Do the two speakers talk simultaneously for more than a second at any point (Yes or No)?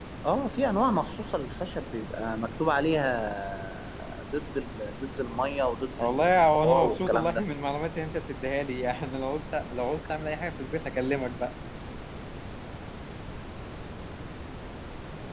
Yes